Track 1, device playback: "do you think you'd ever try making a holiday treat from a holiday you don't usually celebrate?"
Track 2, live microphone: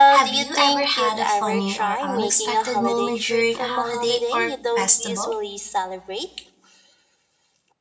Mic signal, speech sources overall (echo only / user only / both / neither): both